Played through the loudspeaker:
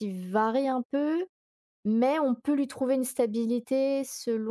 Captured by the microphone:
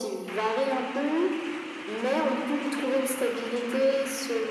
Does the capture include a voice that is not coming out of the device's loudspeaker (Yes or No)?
No